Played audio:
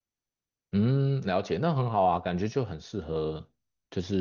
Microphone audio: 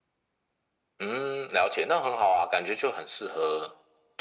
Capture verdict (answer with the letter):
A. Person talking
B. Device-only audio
B